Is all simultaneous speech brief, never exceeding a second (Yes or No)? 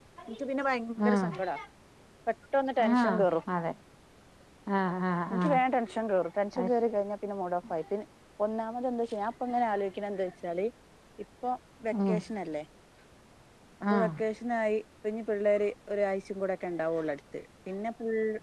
Yes